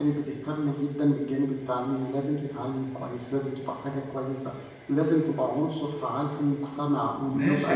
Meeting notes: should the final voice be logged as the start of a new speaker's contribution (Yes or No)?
Yes